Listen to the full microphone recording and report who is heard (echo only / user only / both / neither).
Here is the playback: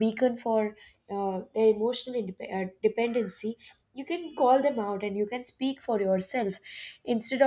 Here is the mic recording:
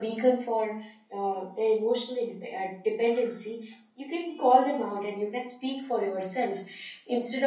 echo only